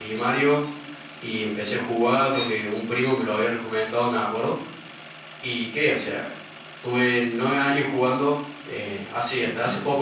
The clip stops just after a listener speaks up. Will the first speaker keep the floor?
Yes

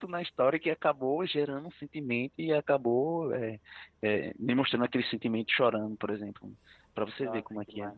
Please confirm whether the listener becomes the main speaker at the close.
Yes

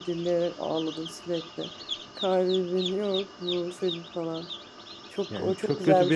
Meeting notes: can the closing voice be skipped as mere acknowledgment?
No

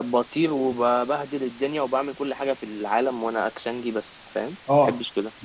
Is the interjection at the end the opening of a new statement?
Yes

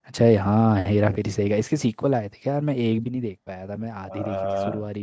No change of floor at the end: No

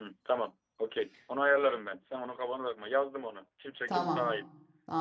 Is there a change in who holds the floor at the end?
Yes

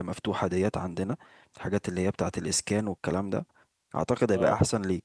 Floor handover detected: No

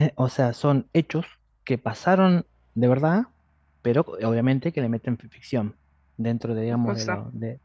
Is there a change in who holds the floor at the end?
No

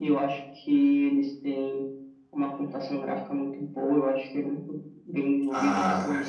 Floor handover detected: Yes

